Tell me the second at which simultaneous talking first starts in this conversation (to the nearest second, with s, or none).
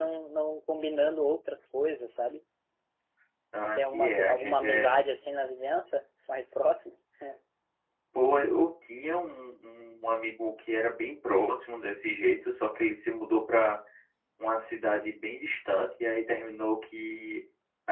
4 s